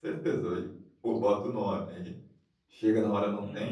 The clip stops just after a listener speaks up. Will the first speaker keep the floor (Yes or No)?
Yes